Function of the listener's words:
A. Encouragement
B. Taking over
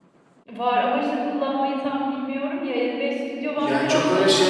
B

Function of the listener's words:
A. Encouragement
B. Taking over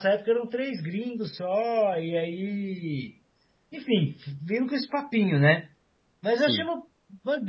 A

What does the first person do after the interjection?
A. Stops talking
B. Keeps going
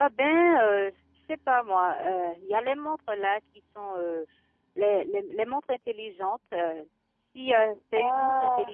B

